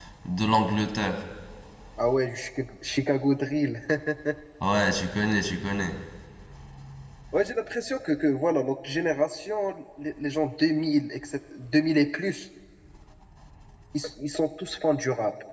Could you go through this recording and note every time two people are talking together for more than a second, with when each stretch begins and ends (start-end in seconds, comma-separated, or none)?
none